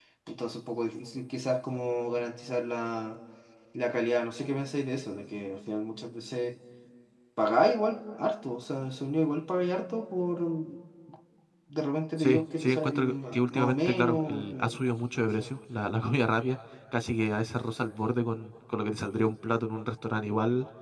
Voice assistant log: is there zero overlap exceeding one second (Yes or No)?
No